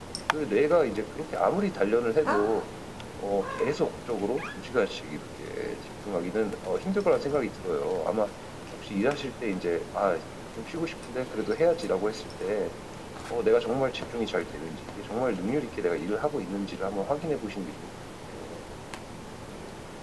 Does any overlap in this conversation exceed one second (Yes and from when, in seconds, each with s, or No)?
No